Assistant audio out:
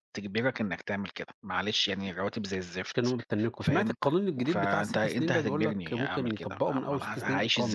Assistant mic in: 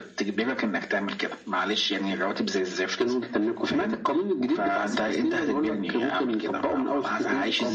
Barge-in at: none

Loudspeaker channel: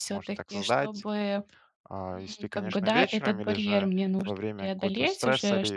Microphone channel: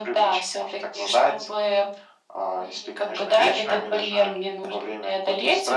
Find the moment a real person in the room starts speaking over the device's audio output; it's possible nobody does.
none

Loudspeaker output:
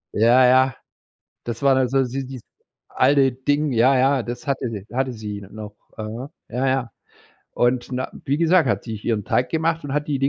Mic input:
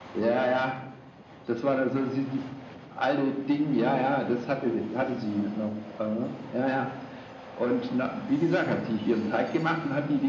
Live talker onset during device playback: none

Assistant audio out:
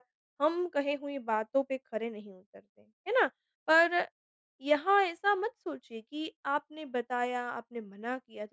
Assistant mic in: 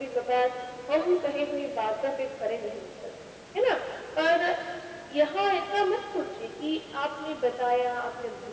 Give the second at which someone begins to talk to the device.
none

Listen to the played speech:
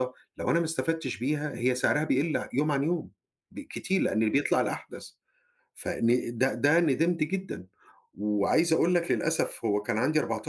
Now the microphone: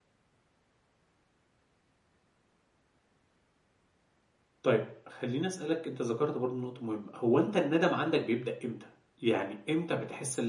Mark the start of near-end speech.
4.6 s

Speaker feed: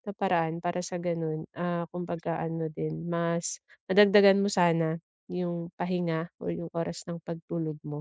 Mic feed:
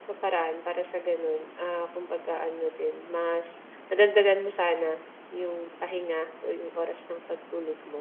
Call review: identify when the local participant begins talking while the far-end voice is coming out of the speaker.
none

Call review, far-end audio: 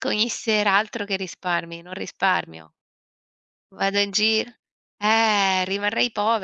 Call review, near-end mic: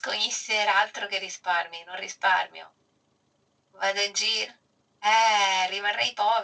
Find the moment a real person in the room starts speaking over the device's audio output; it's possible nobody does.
none

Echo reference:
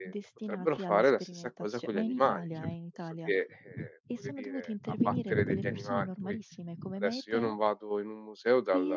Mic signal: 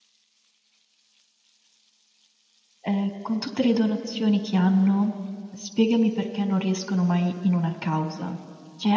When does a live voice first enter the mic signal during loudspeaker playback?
2.8 s

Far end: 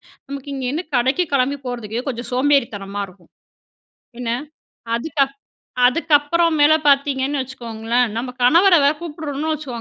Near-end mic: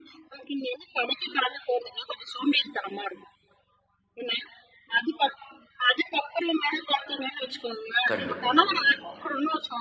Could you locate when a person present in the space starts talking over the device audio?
8.1 s

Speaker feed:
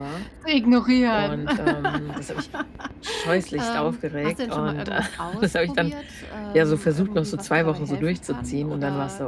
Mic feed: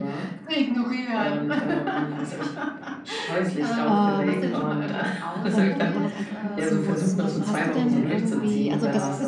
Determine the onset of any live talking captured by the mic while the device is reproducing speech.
3.8 s

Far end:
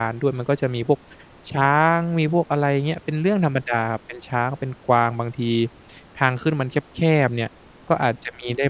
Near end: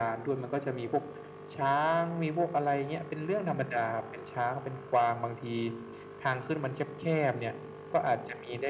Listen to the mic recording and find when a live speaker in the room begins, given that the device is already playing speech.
none

